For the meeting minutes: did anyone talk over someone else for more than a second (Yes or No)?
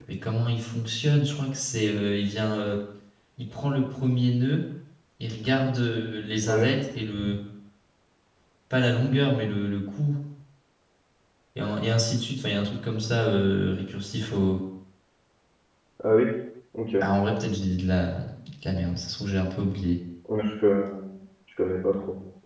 No